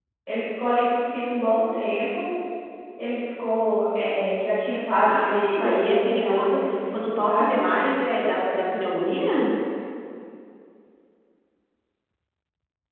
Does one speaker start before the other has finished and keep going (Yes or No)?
Yes